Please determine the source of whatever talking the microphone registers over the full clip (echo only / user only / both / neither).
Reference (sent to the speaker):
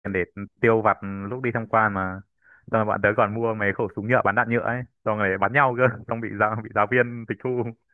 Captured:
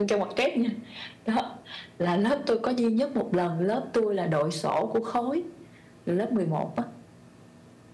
user only